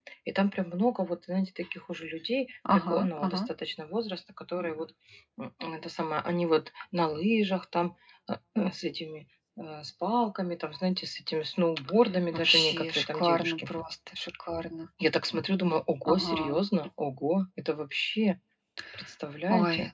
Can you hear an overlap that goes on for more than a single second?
Yes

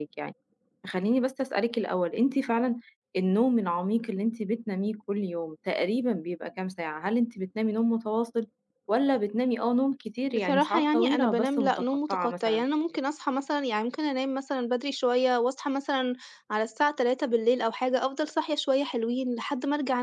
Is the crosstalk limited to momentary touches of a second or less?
No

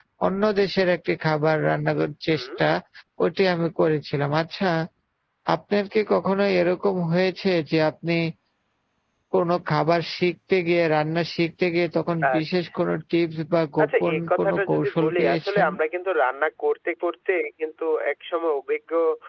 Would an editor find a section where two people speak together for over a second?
Yes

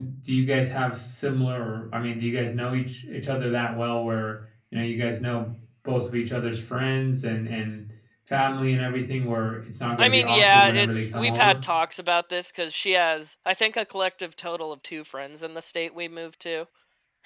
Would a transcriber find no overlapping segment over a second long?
No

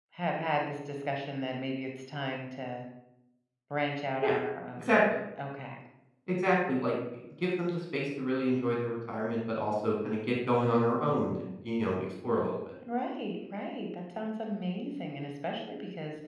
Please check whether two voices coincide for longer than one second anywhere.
No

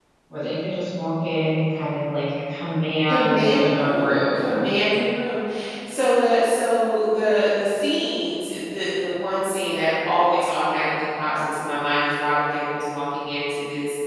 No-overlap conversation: No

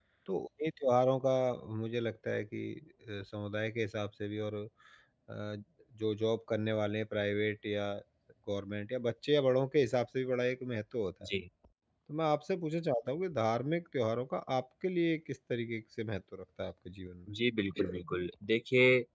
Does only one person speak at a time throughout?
Yes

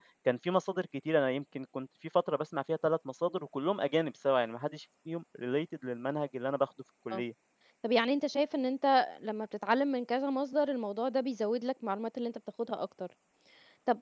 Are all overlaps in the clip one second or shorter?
Yes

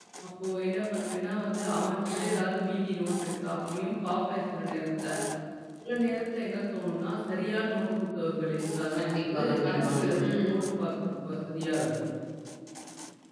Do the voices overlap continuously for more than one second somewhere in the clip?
Yes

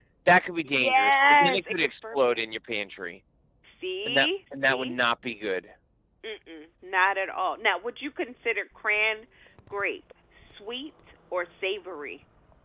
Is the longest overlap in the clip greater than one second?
Yes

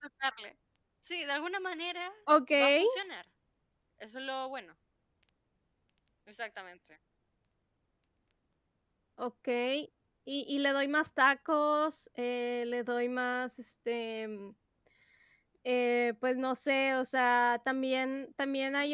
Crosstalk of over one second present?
No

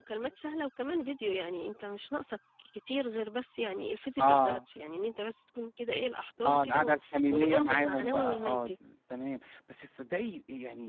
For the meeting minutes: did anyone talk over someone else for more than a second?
Yes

